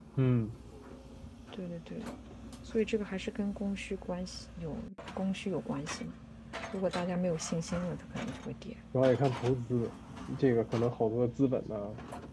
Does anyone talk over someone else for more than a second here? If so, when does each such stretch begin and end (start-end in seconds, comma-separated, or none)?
none